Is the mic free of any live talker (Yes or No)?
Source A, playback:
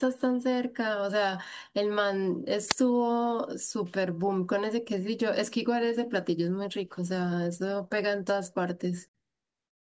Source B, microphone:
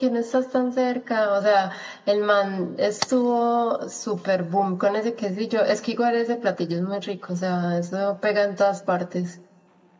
Yes